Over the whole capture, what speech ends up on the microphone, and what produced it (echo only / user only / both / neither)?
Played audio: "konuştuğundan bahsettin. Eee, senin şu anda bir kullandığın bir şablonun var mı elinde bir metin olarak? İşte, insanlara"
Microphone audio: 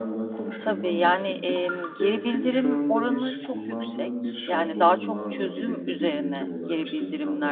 both